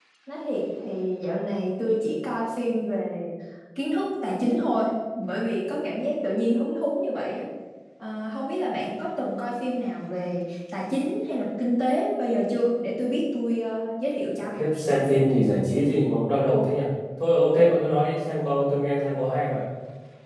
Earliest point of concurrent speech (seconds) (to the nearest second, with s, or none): none